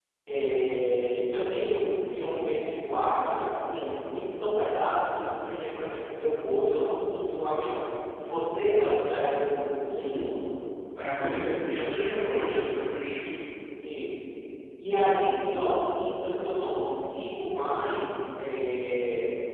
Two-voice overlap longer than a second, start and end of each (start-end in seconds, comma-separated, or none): 11.2-12.8